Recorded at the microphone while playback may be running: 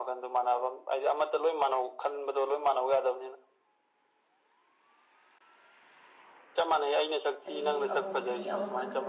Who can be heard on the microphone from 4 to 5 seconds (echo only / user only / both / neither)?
neither